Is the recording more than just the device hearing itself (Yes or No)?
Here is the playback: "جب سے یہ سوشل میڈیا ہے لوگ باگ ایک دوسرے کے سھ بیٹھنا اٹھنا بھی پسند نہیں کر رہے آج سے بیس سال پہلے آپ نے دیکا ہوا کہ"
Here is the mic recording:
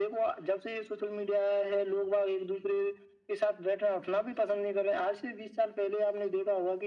No